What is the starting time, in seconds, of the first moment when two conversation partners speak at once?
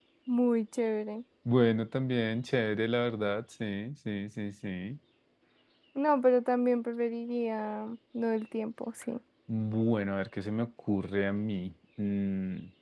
none

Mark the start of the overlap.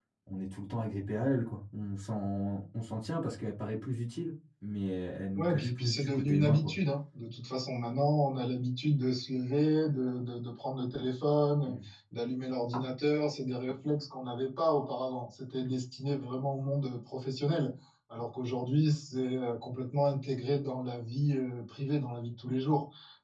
5.3 s

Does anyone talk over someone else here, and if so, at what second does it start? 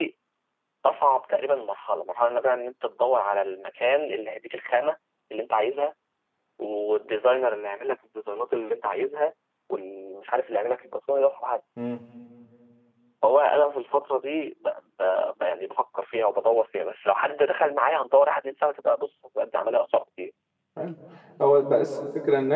none

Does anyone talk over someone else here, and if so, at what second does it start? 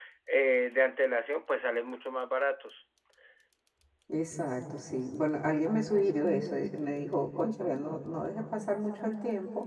none

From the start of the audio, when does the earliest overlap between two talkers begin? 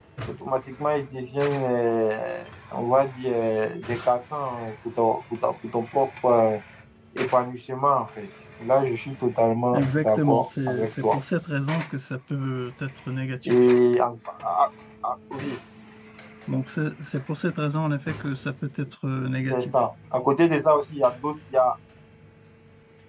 9.7 s

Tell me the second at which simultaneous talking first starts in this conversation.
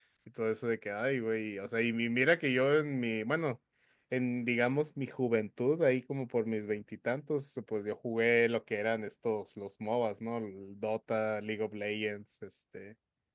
none

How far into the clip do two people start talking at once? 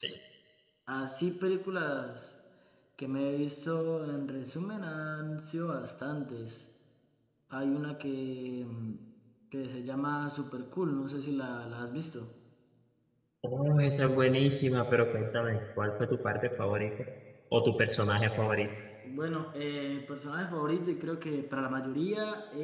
none

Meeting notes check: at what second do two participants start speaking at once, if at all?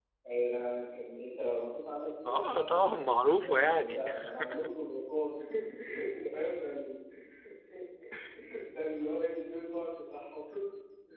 2.2 s

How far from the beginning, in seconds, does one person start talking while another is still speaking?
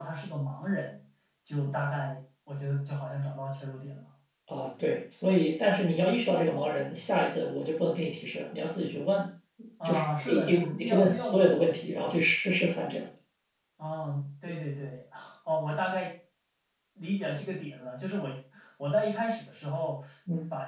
9.8 s

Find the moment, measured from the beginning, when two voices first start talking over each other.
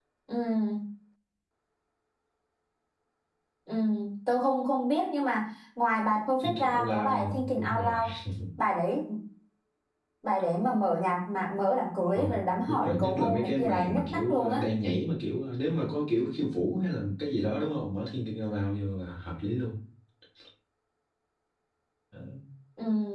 6.4 s

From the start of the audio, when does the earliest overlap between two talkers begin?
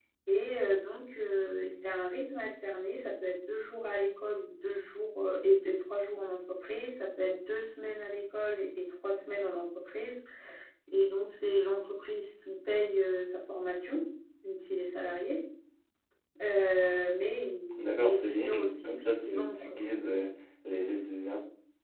17.7 s

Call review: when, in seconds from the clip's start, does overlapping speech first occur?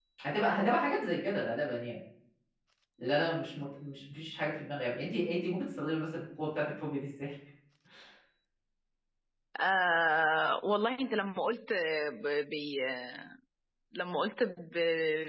none

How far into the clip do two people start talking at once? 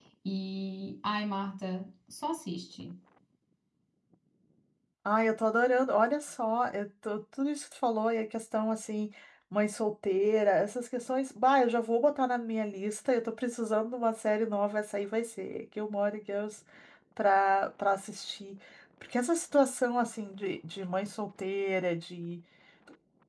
none

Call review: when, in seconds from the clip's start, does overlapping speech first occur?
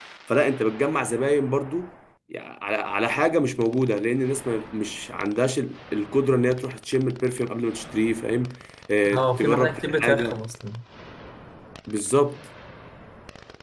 9.1 s

